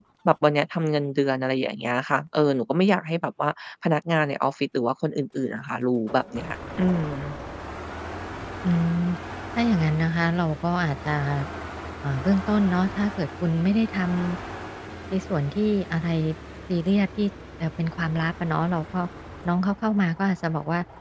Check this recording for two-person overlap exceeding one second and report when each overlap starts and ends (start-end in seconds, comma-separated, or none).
none